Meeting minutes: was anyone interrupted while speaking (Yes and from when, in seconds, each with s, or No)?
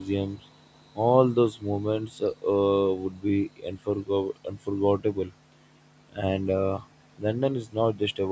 No